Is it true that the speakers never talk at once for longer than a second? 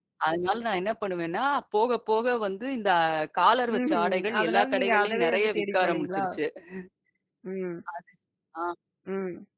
No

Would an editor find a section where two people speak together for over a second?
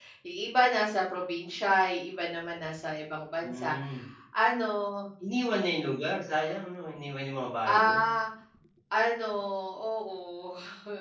No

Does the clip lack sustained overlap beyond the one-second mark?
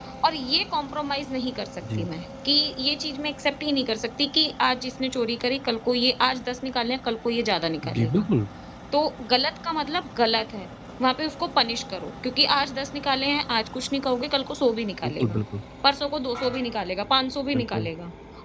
Yes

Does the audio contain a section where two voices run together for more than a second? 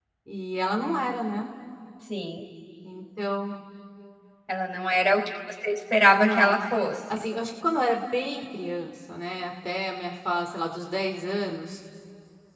No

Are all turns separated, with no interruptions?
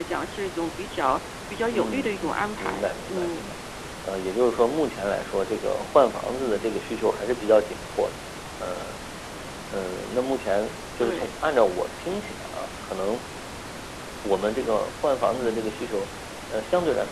No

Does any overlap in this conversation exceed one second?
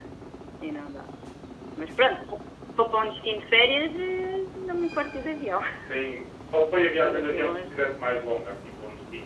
Yes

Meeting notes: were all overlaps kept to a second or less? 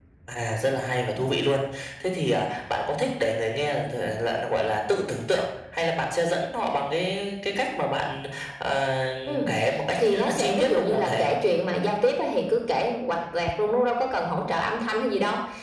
No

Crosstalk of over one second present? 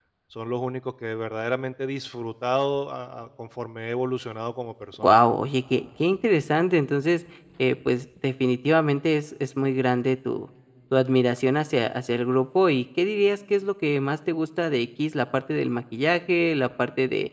No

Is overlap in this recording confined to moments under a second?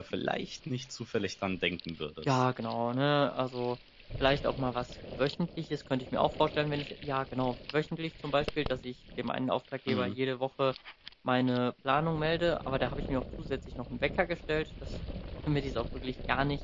Yes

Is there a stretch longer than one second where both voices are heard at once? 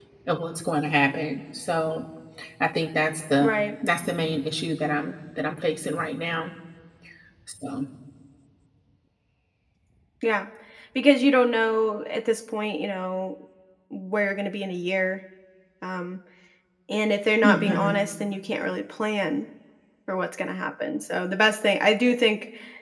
No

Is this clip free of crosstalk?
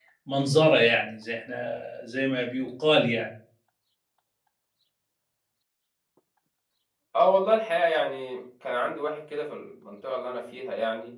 Yes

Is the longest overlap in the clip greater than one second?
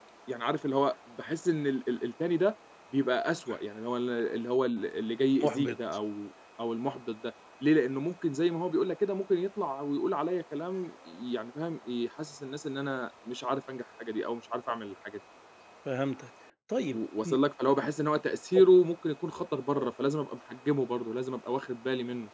No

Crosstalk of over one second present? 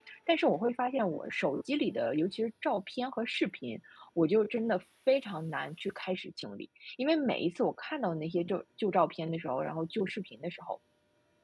No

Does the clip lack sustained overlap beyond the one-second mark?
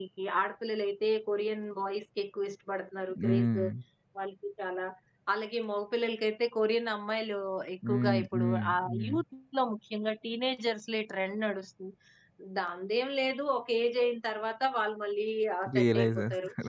No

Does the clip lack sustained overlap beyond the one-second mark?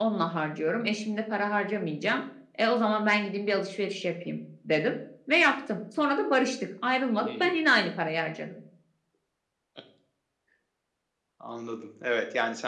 Yes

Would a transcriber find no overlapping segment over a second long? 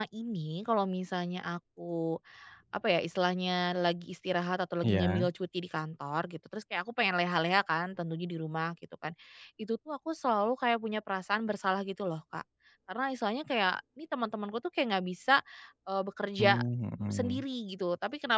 Yes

